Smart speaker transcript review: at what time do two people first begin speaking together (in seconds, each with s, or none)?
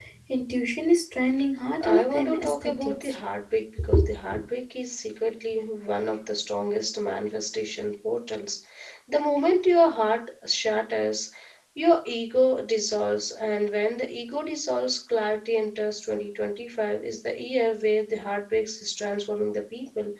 1.8 s